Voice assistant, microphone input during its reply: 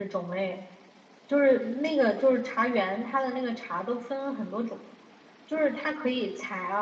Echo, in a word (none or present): none